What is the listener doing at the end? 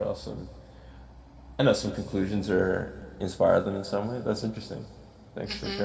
taking over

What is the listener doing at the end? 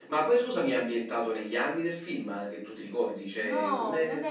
taking over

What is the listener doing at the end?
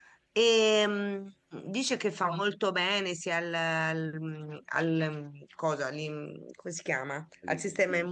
listening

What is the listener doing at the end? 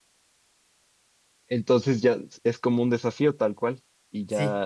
taking over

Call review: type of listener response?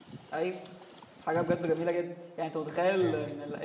listening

